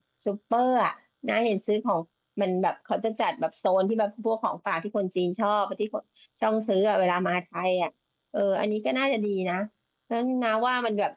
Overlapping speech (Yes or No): No